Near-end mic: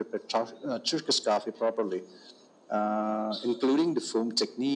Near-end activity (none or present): none